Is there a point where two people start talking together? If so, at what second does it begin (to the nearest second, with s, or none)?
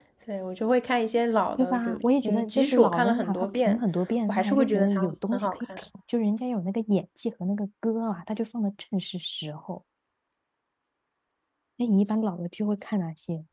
2 s